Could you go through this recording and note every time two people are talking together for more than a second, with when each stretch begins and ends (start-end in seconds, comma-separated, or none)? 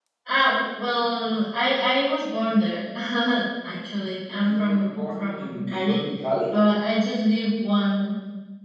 4.5-6.0